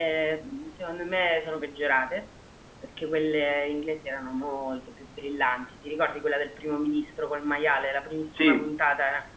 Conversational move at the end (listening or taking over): listening